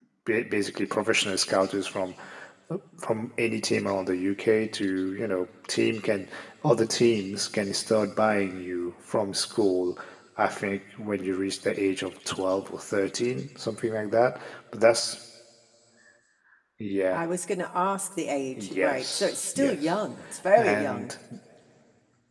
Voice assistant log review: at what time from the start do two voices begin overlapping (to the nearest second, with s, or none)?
19 s